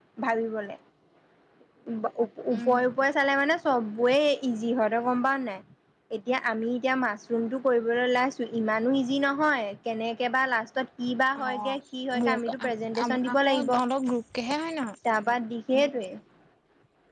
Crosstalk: present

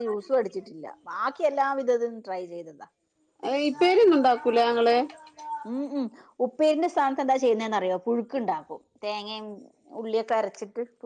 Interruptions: none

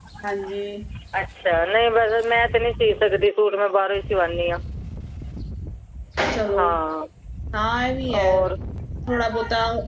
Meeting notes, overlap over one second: none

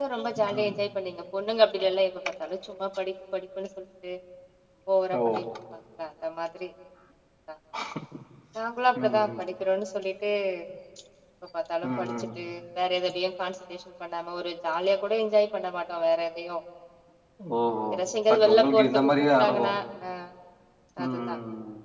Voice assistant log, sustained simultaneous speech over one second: present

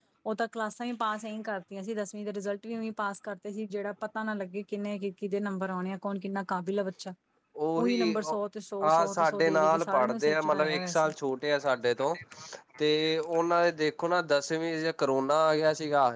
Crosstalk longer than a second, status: present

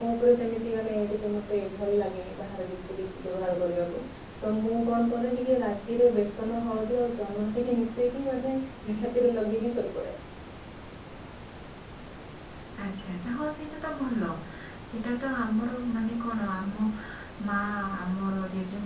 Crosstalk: none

